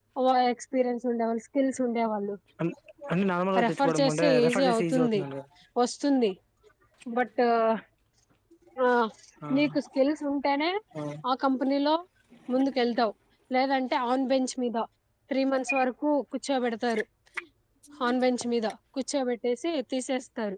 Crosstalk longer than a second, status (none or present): present